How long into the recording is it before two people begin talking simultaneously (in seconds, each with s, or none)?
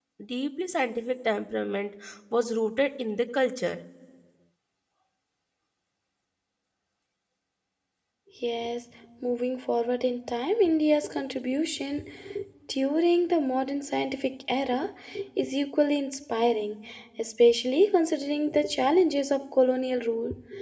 none